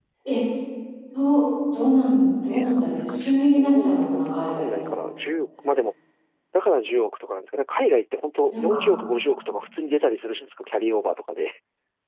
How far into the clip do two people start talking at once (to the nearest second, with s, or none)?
3 s